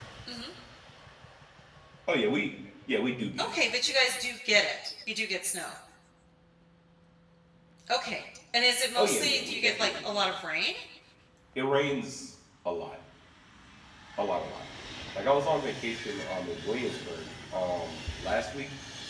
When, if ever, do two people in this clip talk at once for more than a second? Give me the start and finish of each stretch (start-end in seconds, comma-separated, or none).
9.0-10.3